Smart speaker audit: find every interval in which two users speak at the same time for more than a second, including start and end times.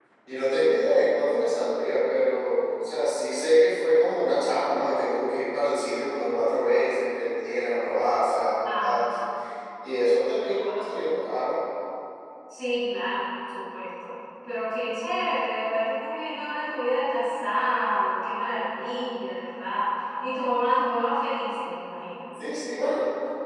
none

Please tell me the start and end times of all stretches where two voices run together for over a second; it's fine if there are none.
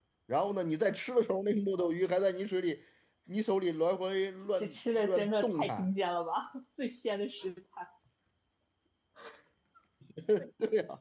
4.6-5.9

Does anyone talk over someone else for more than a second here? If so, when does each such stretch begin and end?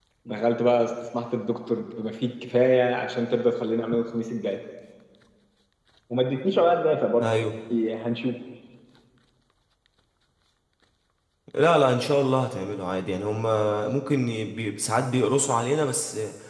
none

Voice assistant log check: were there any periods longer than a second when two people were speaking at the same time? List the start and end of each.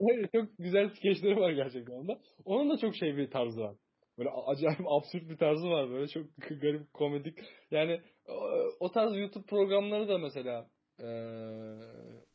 none

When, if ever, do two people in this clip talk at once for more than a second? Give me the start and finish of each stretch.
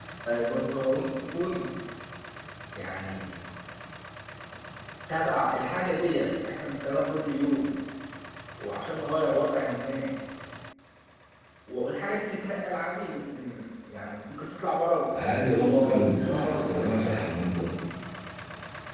15.2-17.2

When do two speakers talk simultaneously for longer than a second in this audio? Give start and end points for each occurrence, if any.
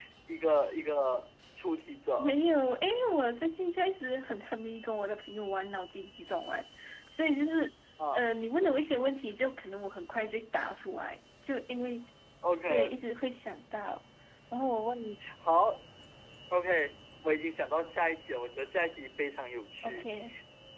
none

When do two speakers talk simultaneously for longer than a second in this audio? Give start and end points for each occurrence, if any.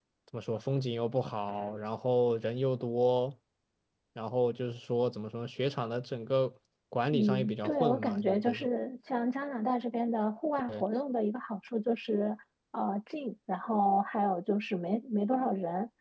7.1-8.7

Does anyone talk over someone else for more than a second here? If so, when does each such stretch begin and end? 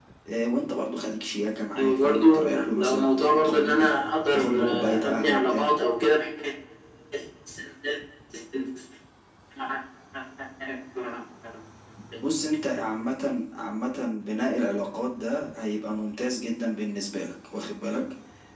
1.8-4.0, 4.3-5.7

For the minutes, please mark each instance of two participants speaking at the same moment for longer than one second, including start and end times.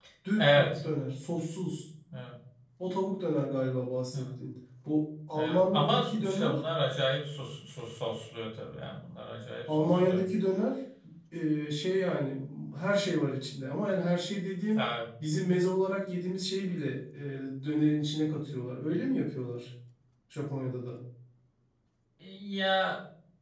5.3-6.6

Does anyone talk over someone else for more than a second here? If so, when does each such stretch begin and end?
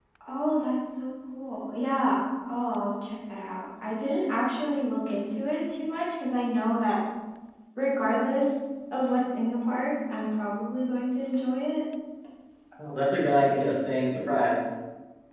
none

